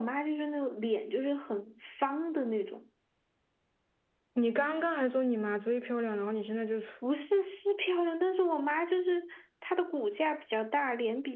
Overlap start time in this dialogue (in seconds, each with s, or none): none